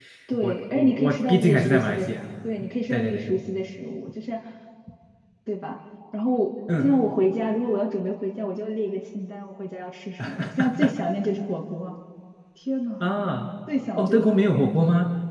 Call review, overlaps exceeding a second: present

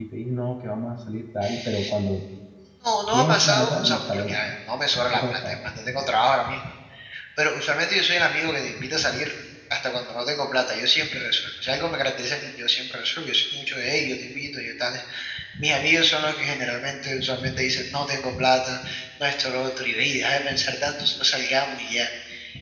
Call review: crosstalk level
present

